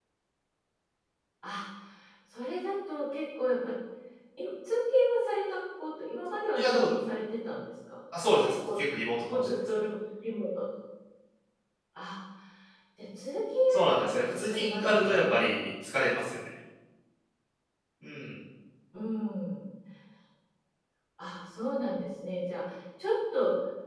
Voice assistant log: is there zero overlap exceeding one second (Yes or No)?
No